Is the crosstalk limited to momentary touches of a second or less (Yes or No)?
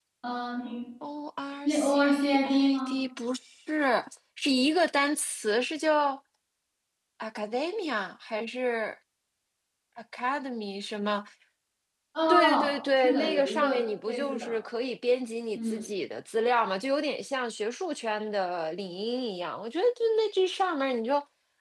No